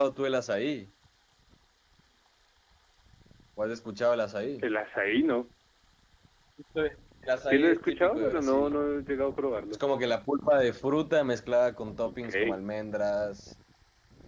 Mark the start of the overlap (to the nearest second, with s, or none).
7 s